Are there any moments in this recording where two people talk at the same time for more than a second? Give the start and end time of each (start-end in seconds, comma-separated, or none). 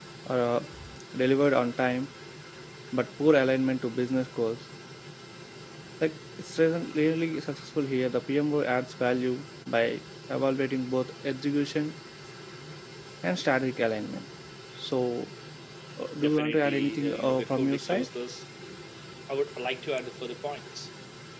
16.2-18.0